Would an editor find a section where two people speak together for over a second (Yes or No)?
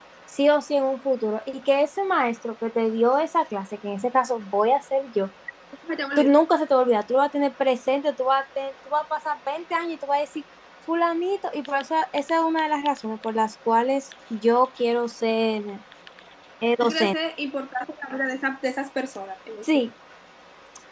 No